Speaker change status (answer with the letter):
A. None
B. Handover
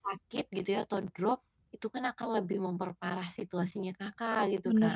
B